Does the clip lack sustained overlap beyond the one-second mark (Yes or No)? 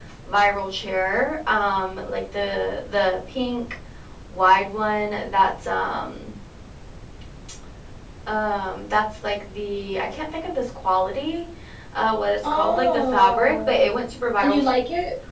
No